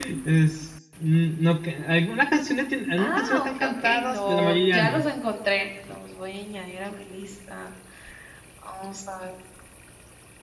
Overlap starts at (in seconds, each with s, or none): 3.0 s